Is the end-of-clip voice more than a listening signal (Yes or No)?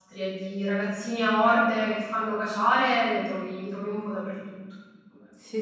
Yes